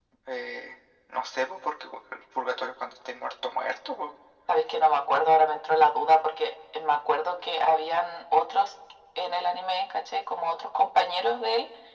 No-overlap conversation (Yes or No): Yes